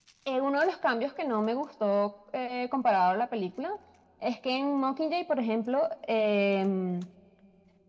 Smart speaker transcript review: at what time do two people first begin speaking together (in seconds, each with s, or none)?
none